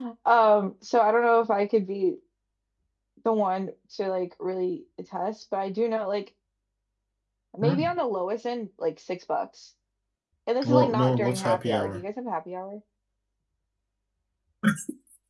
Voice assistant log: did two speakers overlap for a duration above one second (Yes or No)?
Yes